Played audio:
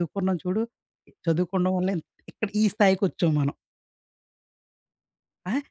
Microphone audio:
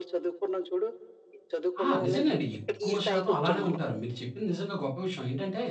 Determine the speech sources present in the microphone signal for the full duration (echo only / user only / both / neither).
both